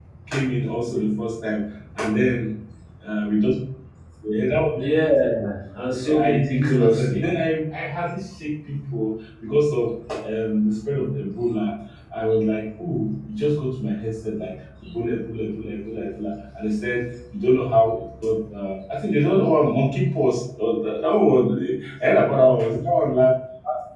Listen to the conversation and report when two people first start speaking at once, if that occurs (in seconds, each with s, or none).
6.0 s